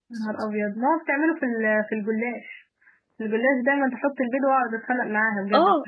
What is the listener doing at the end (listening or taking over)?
taking over